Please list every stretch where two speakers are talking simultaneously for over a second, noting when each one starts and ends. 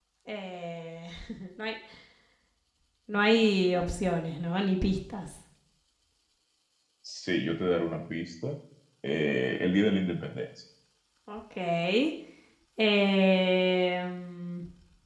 none

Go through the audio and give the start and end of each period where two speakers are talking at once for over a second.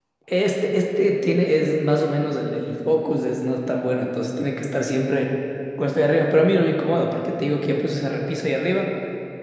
none

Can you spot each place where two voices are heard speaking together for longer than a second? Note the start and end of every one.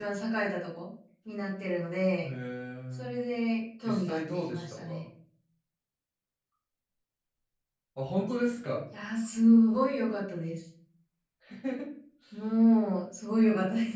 3.9-5.0

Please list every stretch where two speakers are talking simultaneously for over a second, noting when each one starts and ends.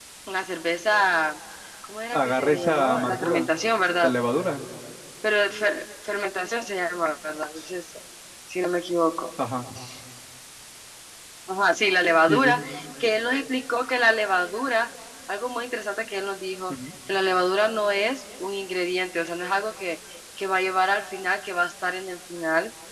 2.1-3.5

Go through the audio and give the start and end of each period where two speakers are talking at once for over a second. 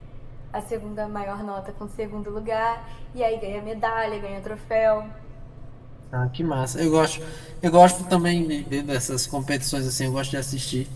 none

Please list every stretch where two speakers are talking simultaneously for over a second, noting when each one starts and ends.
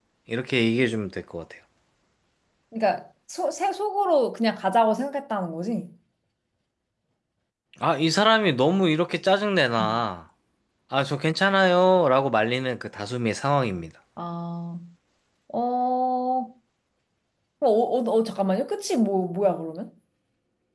none

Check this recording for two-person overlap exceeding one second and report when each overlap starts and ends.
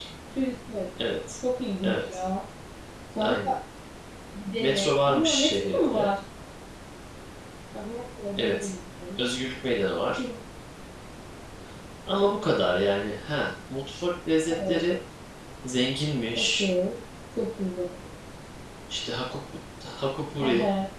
4.6-6.1

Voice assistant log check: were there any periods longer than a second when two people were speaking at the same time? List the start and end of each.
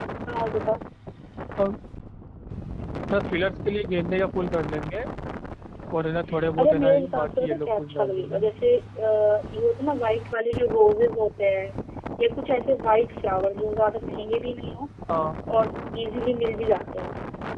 6.6-8.5

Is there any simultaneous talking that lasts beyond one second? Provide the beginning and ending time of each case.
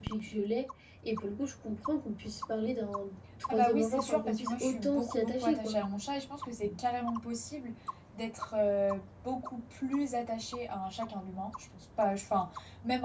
3.5-5.8

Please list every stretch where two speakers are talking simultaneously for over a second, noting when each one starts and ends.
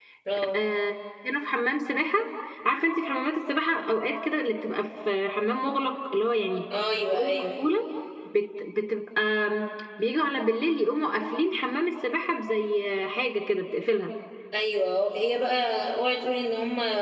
none

